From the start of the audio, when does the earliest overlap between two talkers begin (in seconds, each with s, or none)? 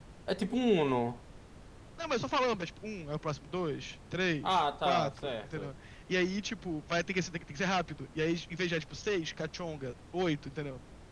4.4 s